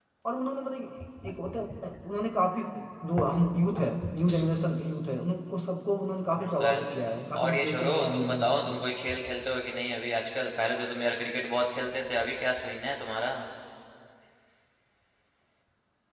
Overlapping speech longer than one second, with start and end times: 7.4-8.8

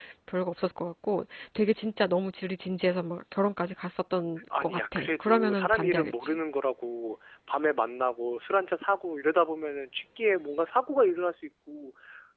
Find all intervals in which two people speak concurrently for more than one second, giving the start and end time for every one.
4.6-6.4

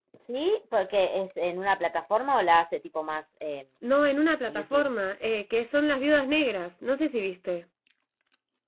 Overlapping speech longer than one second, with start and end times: none

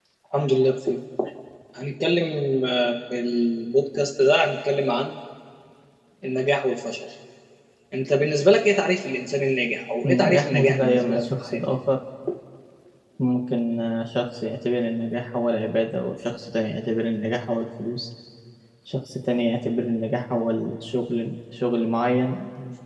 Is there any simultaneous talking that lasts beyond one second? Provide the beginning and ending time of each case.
10.1-11.6

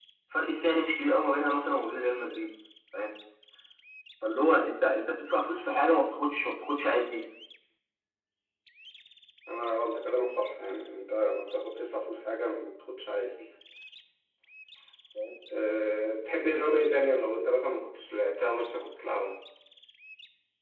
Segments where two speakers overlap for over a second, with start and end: none

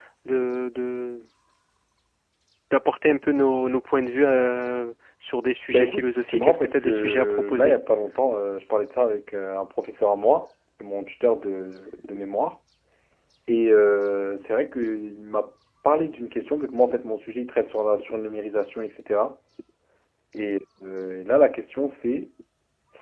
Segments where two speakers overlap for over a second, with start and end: 5.7-7.7

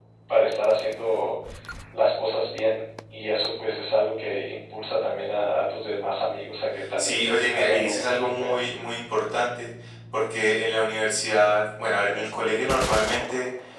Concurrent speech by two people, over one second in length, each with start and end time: 7.0-8.6

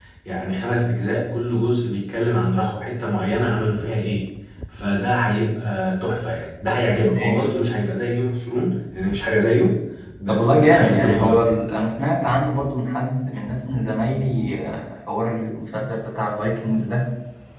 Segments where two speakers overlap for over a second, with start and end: 10.3-11.5

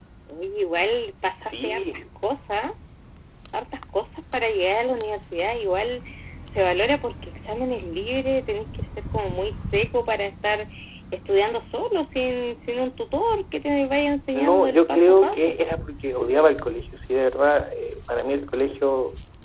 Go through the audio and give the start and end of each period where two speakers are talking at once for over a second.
14.3-15.5

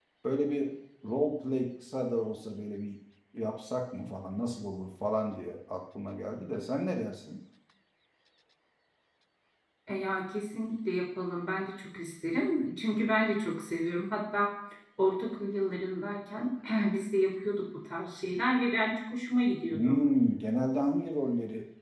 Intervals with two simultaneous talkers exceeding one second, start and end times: none

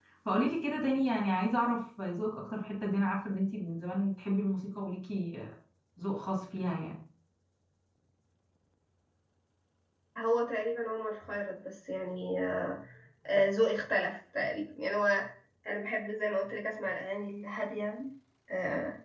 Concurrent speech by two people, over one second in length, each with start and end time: none

